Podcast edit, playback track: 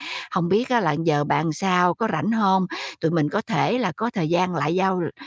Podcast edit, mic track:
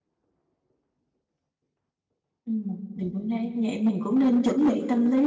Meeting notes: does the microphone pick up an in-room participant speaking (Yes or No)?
Yes